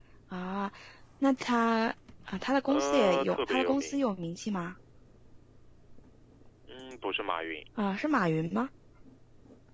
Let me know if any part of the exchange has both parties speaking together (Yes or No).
Yes